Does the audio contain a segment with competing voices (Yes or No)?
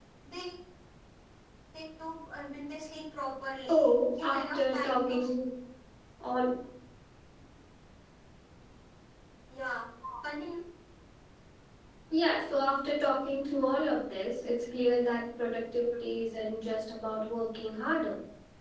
Yes